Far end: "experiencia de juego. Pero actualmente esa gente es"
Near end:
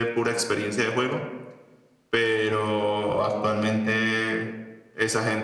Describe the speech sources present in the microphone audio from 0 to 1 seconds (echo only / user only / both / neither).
echo only